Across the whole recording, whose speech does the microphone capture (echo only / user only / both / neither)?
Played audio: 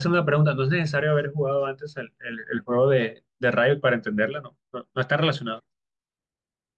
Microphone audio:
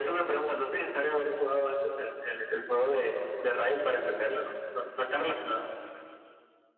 echo only